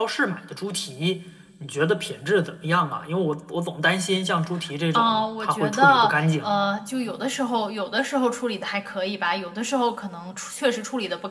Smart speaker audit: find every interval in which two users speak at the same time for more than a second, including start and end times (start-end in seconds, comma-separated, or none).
4.9-6.5